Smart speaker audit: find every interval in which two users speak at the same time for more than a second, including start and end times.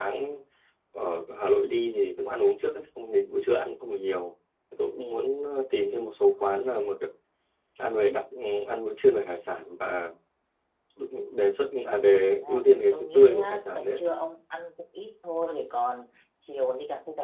12.3-14.0

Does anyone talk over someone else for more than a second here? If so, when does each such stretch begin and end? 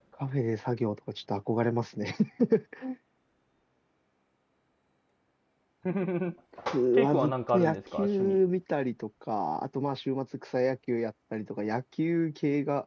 6.9-8.4

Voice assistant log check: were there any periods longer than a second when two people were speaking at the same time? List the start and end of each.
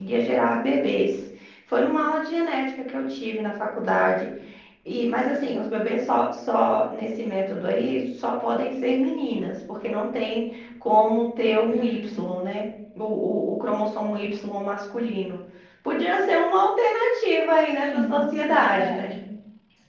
17.8-19.1

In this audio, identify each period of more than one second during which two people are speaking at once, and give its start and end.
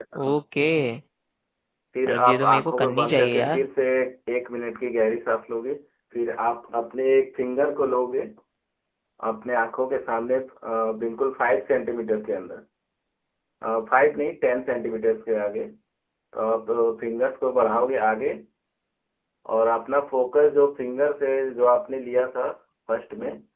2.1-3.6

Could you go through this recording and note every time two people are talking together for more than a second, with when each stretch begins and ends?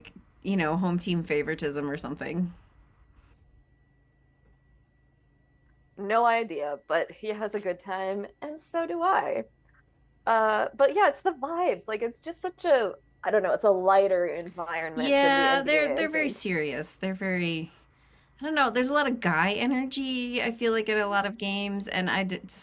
15.0-16.4

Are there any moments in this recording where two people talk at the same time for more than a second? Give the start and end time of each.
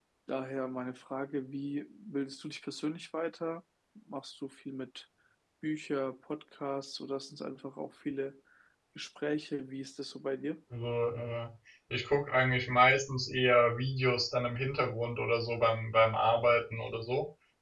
none

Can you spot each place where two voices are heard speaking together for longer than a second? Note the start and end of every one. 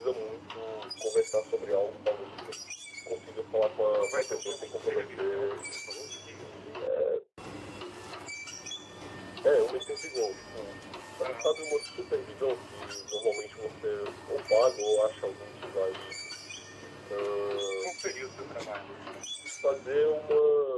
4.1-5.6

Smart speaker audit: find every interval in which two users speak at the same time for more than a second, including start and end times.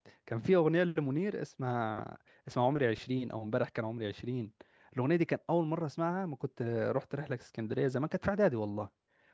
none

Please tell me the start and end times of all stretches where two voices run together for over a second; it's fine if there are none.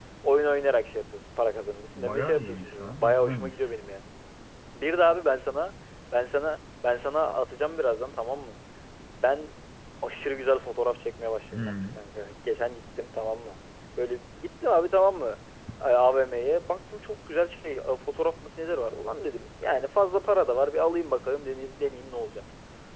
2.0-3.7

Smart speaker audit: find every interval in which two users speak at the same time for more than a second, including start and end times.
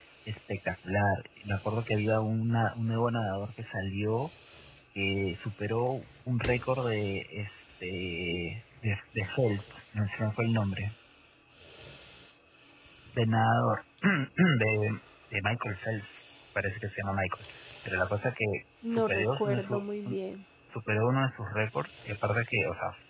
18.8-20.1

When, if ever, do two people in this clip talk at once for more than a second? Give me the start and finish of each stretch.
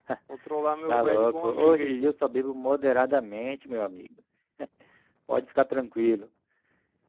0.9-2.1

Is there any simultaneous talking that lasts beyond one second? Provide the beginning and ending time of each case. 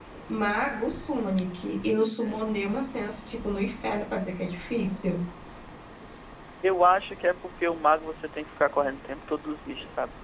none

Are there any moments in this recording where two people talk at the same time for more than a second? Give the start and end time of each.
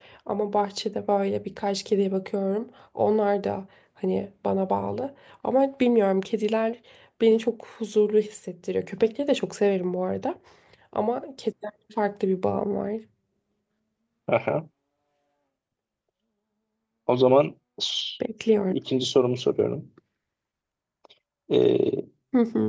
none

